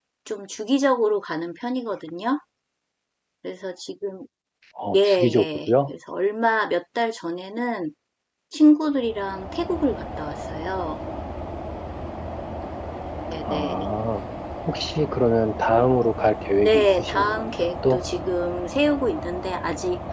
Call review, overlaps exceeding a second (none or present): present